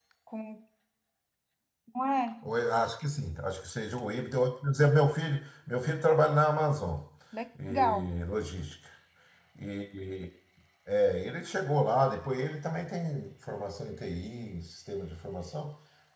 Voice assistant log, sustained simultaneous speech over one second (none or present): none